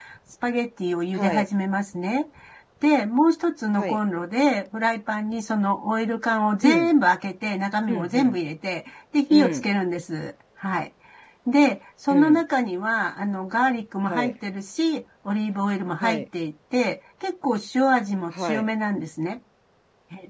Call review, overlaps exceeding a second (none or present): none